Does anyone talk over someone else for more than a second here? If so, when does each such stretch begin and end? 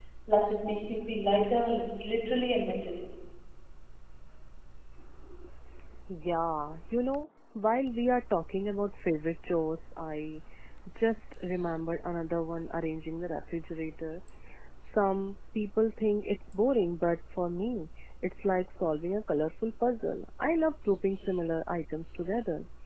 none

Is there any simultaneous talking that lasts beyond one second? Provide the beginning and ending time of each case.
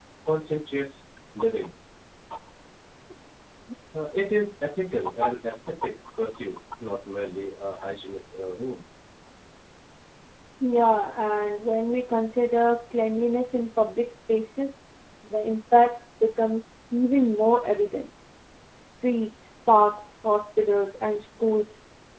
none

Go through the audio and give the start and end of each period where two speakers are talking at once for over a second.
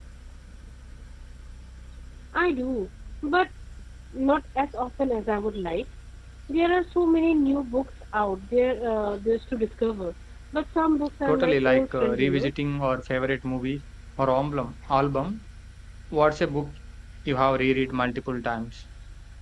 11.2-12.5

